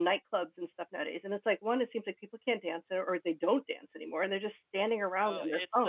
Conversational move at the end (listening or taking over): taking over